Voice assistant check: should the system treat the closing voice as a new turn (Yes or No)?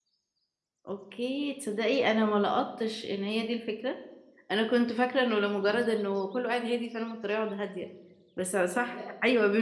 No